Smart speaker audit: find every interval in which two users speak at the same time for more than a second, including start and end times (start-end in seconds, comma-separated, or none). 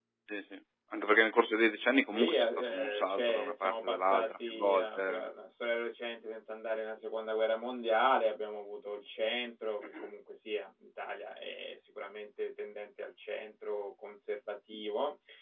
2.1-5.3